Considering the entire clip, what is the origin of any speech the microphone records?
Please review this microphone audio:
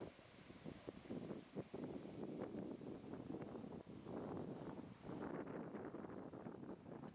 neither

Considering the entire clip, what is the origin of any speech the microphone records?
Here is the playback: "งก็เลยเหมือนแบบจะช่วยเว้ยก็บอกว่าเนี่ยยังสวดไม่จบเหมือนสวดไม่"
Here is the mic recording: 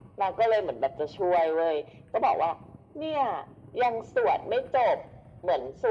echo only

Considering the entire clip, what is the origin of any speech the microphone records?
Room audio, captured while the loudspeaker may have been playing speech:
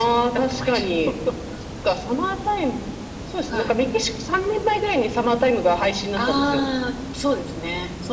echo only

